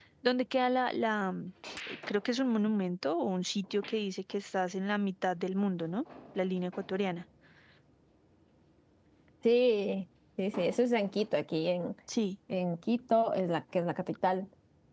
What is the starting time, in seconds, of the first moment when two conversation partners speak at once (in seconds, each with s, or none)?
none